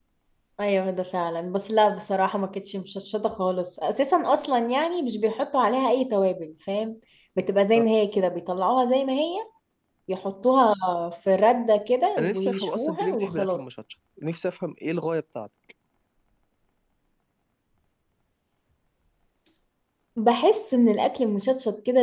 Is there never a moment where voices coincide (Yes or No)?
No